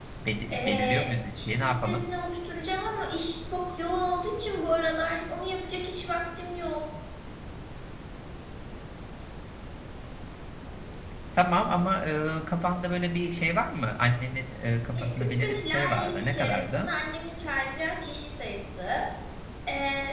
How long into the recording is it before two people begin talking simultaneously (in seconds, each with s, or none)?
0.5 s